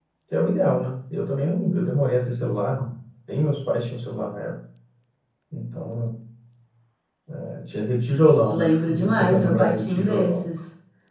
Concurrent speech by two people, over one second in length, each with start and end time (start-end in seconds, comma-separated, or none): 8.5-10.4